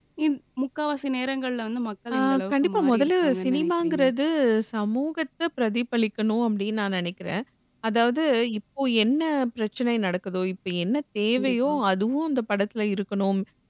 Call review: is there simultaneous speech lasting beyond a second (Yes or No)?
Yes